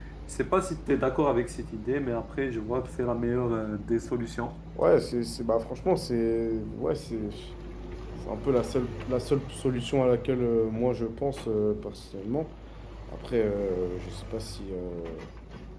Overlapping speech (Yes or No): No